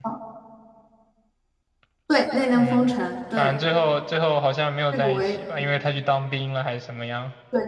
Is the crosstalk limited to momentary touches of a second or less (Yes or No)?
Yes